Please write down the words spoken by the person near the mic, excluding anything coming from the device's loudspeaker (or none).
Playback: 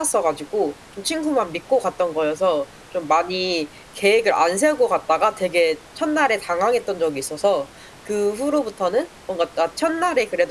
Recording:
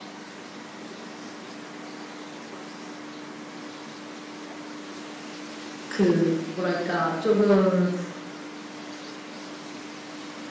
그 뭐랄까 쪼금